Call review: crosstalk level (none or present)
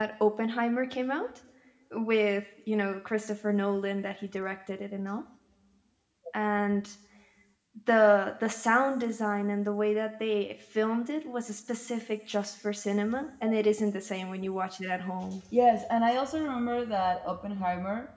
none